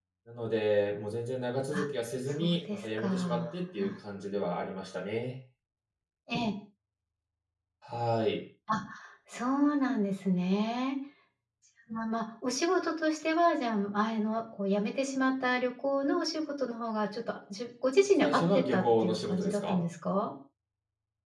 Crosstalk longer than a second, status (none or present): present